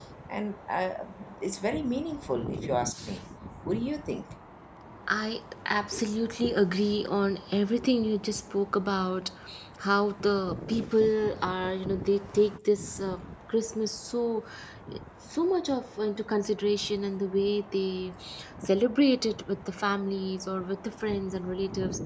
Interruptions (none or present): none